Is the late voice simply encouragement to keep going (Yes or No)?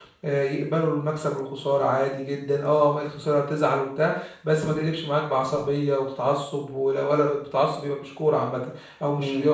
No